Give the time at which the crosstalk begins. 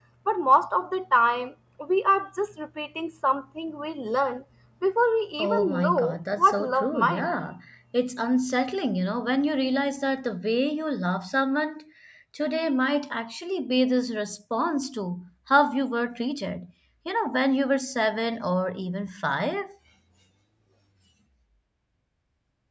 5.4 s

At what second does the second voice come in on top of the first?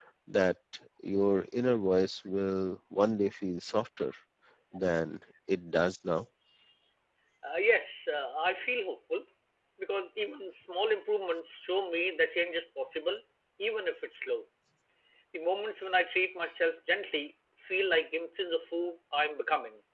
none

